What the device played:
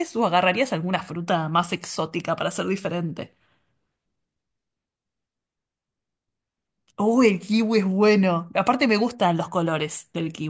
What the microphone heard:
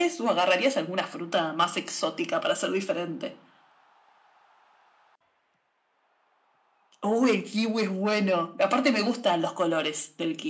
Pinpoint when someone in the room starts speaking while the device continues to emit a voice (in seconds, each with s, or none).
none